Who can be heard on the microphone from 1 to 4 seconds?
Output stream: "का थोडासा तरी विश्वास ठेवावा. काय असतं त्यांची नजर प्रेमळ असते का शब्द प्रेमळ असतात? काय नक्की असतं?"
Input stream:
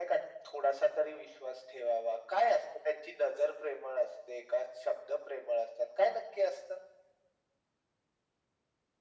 echo only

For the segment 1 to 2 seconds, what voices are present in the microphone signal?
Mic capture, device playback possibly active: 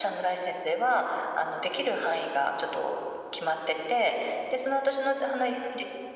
echo only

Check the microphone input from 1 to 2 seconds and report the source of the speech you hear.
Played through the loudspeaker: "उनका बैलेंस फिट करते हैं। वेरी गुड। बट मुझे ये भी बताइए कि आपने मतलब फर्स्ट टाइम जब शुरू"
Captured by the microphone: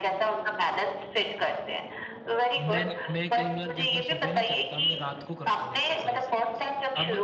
echo only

